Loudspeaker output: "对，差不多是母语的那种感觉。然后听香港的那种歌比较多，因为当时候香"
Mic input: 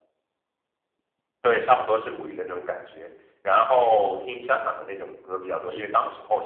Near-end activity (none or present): none